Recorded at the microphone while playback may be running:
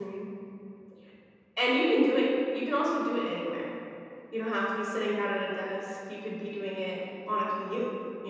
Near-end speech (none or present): present